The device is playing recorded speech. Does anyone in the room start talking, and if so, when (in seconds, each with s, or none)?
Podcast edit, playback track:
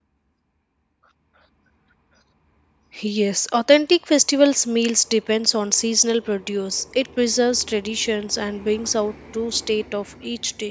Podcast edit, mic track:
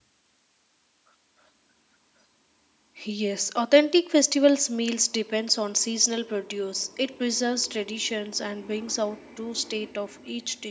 none